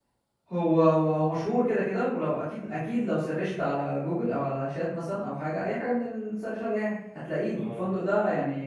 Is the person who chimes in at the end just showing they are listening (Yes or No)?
Yes